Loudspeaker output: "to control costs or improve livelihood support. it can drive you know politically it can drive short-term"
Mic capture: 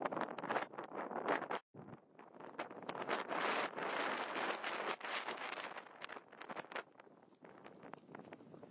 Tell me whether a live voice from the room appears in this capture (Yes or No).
No